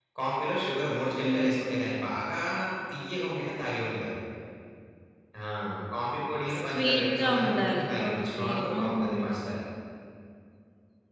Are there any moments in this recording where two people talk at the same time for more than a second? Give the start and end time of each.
6.5-9.2

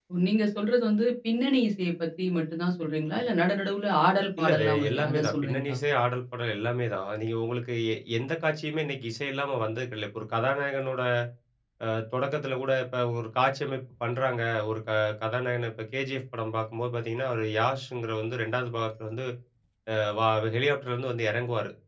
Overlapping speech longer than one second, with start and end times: 4.4-5.8

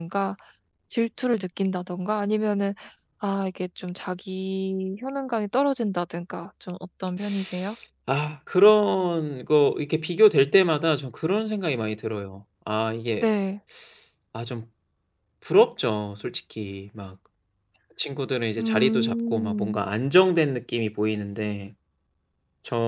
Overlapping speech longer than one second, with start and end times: 18.6-19.8

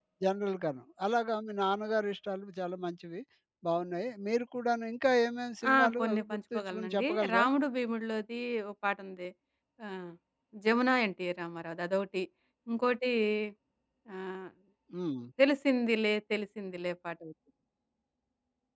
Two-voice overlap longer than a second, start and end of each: 5.7-7.5

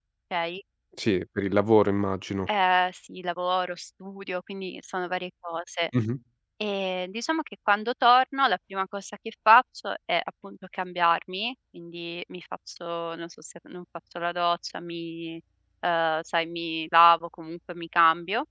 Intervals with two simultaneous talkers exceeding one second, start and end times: none

